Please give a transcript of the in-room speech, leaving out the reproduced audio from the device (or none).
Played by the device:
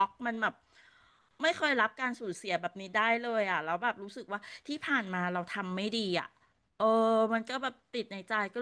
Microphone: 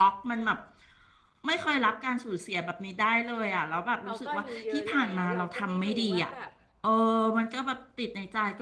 เขาก็อายู่เยอะแล้วเราก็ไม่รู้ว่าแบบ